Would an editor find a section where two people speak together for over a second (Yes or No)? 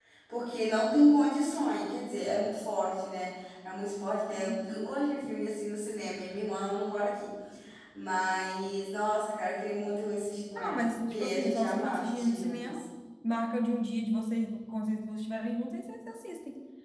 Yes